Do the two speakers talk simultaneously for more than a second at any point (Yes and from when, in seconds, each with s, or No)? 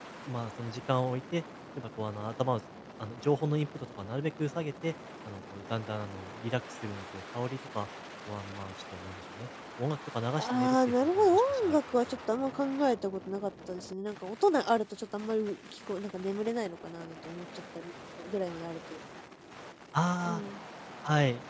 Yes, from 10.4 s